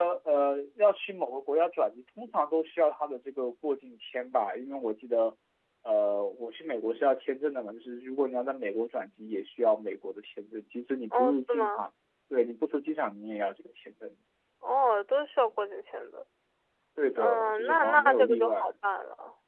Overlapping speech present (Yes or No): Yes